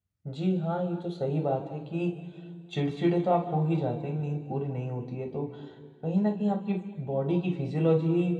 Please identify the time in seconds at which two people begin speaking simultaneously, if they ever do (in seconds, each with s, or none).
none